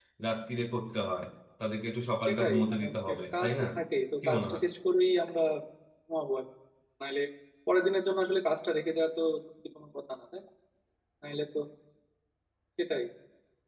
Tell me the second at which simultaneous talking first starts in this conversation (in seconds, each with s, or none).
2.2 s